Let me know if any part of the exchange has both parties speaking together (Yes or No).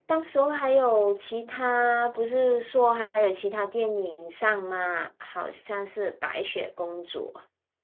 No